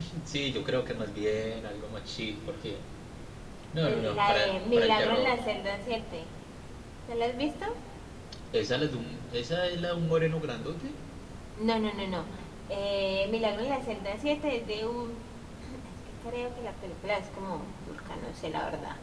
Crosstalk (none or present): present